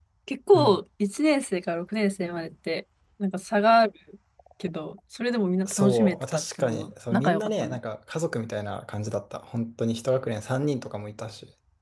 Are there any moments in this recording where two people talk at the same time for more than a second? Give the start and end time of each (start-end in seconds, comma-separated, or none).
5.7-7.8